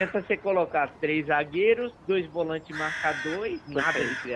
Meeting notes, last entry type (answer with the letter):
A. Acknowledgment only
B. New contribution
B